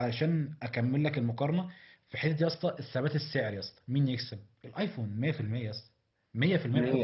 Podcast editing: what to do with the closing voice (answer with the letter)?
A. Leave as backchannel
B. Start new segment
B